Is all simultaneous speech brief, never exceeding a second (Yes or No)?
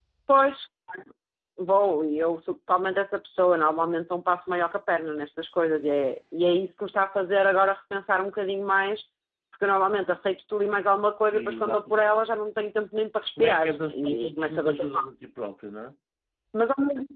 No